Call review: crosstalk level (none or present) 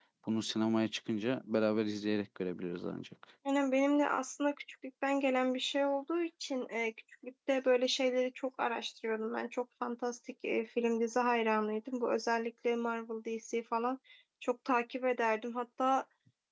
none